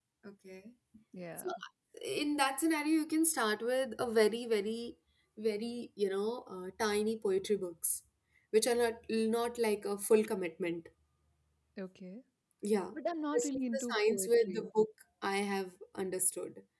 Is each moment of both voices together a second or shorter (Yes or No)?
No